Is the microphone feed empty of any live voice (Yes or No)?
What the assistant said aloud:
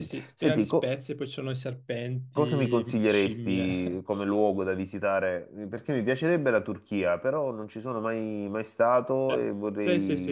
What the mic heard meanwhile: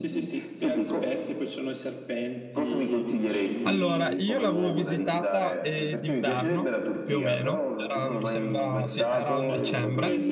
No